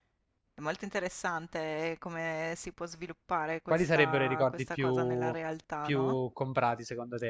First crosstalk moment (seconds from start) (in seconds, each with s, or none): 3.7 s